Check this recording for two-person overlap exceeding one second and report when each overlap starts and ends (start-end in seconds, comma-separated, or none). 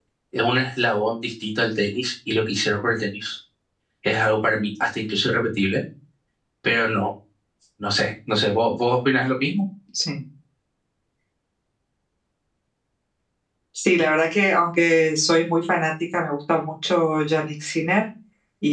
none